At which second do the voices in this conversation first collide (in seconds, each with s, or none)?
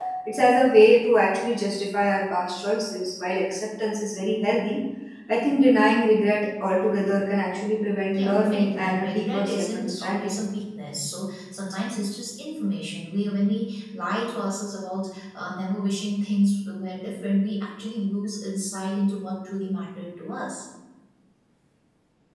8.1 s